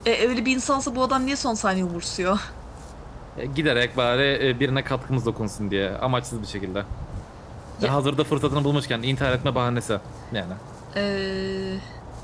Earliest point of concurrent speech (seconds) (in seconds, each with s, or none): none